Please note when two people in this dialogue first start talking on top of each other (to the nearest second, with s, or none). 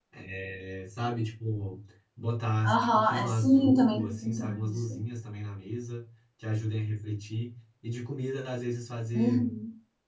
3 s